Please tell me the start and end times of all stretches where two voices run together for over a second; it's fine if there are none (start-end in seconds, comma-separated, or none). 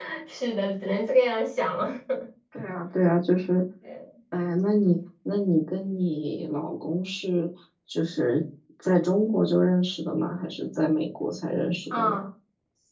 none